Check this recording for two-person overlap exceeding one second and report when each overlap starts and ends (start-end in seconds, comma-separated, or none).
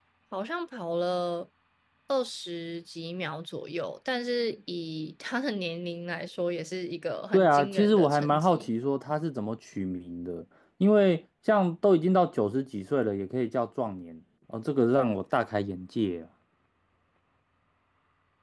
7.3-8.7